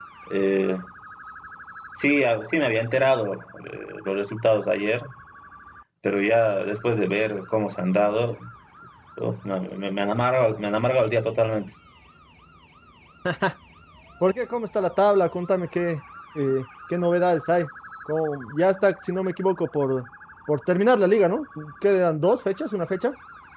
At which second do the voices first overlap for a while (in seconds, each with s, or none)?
none